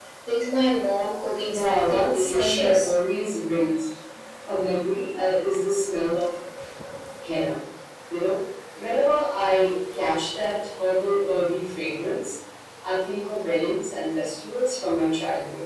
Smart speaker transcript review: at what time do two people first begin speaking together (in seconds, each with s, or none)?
1.3 s